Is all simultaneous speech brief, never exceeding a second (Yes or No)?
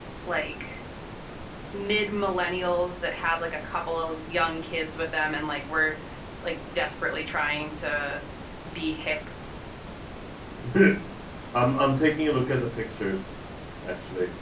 Yes